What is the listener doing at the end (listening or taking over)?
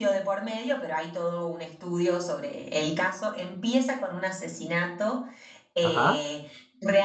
listening